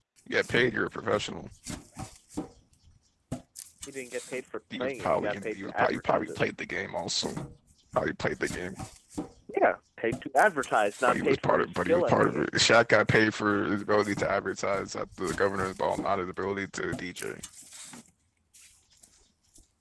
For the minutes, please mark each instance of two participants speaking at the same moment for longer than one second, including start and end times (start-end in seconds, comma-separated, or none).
4.7-6.4, 11.1-12.5